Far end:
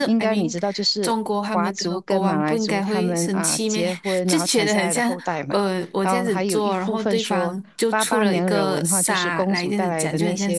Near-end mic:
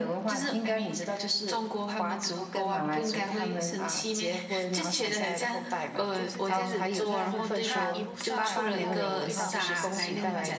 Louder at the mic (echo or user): echo